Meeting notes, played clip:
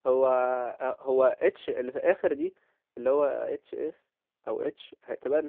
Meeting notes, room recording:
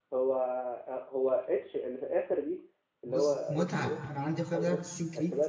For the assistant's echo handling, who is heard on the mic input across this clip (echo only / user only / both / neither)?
both